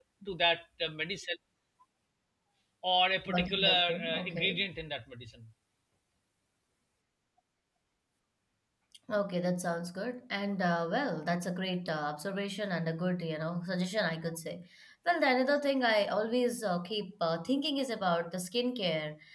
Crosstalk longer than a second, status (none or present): present